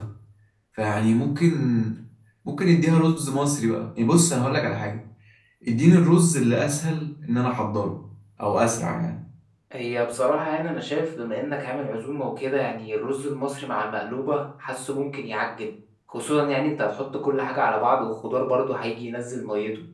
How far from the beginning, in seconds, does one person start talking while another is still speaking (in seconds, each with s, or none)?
none